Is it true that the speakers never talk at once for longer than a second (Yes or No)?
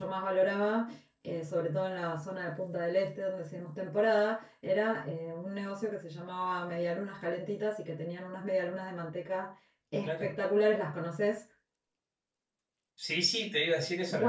Yes